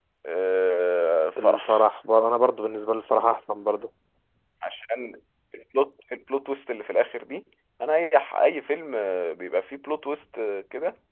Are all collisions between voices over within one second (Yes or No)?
Yes